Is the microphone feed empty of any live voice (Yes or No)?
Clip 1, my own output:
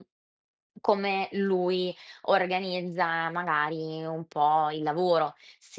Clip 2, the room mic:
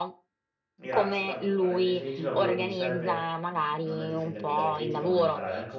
No